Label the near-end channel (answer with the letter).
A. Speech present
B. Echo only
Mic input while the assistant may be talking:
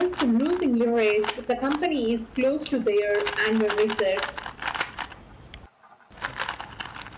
A